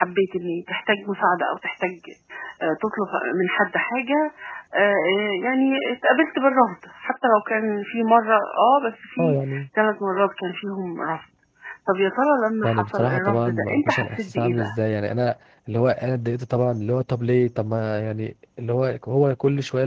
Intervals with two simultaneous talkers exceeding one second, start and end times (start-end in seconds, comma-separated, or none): 12.6-14.7